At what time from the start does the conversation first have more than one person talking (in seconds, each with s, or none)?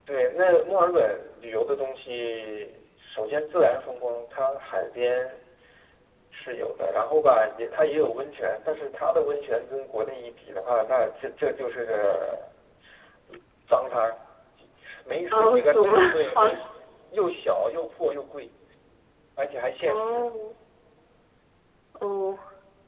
15.3 s